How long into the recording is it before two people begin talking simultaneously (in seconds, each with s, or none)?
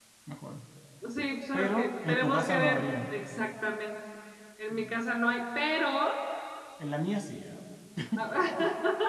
1.5 s